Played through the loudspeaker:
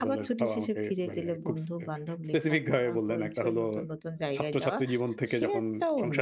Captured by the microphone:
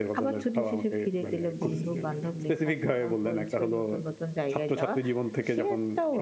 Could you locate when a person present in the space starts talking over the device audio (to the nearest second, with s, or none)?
2 s